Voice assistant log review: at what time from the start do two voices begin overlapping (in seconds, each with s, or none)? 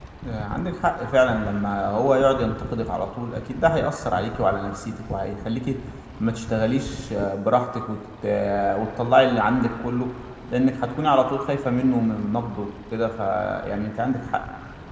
none